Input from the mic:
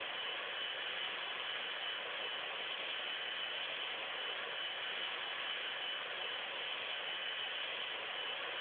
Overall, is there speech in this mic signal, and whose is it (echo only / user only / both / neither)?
neither